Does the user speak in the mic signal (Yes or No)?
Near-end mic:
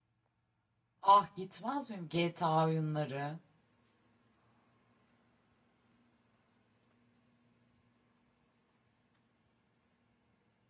Yes